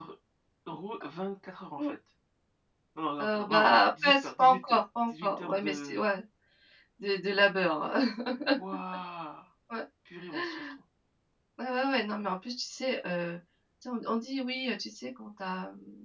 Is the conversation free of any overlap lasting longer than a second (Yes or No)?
No